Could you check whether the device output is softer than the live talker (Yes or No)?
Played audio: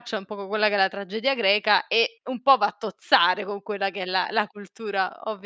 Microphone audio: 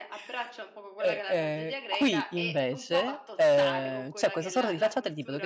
Yes